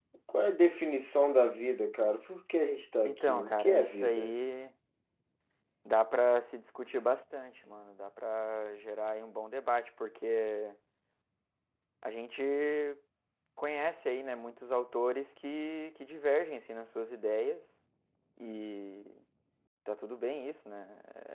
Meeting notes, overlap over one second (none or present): present